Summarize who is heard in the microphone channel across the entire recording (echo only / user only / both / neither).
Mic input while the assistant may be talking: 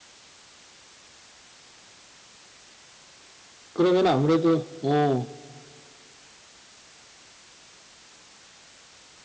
user only